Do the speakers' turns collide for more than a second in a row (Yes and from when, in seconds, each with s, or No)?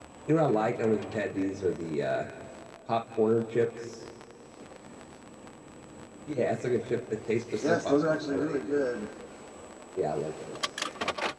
Yes, from 7.6 s